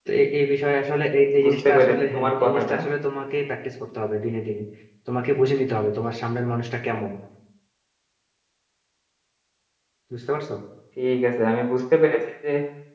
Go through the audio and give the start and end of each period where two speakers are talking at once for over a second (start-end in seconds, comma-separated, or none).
1.4-2.8